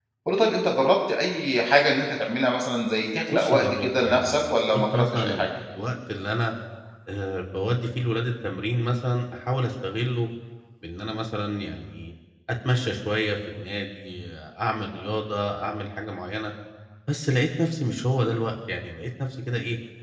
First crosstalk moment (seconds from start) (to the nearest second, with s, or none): 3 s